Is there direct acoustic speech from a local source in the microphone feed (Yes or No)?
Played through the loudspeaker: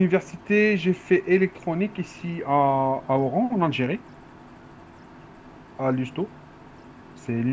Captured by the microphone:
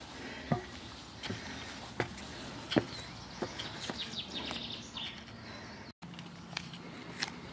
No